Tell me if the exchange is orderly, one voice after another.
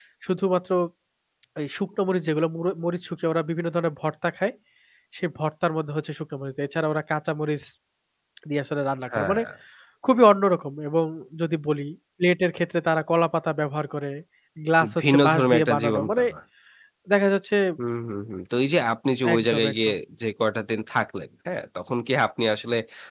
No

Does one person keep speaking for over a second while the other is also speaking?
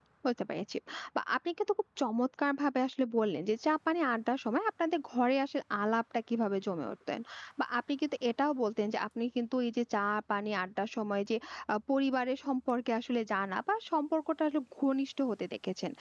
No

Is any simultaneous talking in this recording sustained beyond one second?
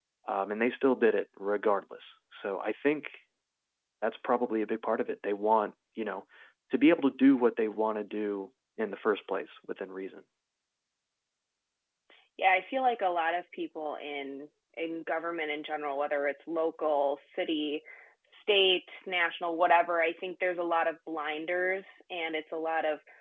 No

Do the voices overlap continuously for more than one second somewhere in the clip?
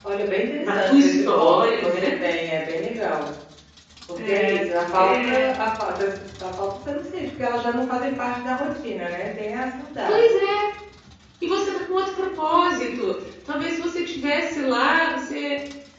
Yes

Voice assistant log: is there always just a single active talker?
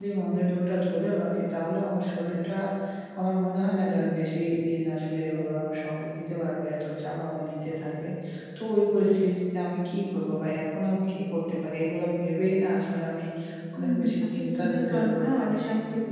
No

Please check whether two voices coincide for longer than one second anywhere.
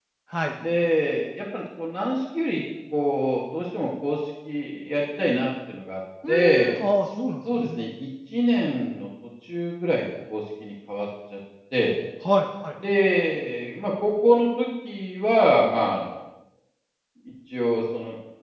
No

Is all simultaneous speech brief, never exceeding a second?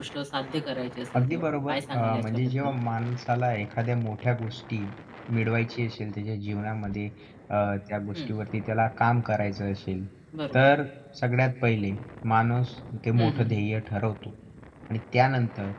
No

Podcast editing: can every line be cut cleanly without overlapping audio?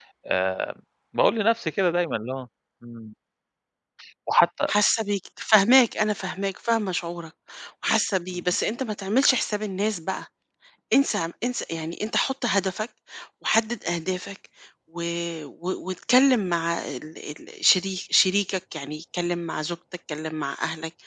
Yes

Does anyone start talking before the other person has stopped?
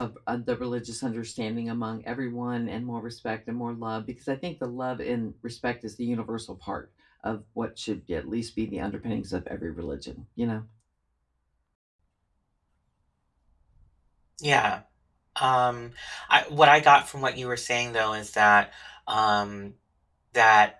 No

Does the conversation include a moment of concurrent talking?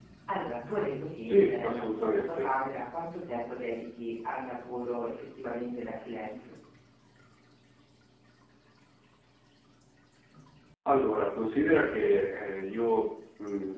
Yes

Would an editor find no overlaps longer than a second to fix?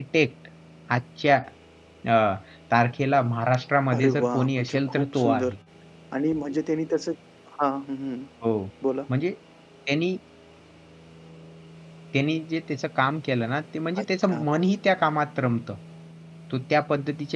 No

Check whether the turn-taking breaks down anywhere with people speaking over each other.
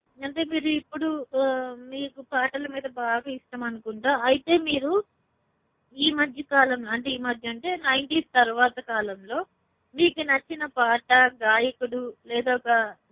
No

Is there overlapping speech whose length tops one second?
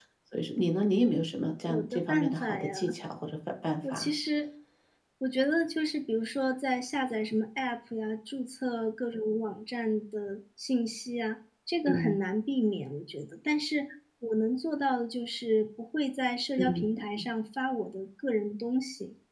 Yes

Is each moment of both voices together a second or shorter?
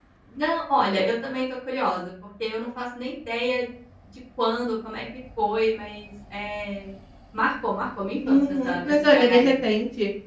No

